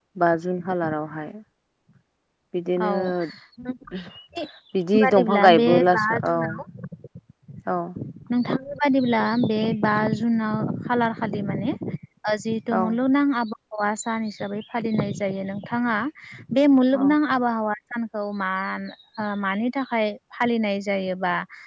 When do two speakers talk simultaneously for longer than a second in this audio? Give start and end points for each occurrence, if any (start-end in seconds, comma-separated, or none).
5.0-6.3